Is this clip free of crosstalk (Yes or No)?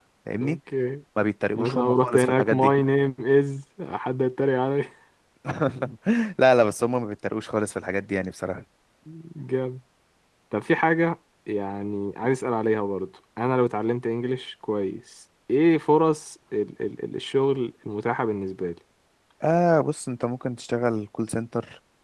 No